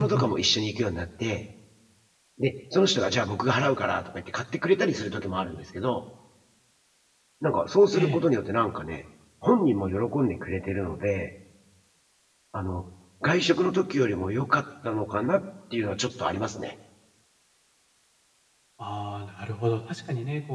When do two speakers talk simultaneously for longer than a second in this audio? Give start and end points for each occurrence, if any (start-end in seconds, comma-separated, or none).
none